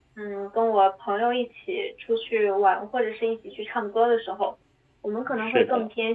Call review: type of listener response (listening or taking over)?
listening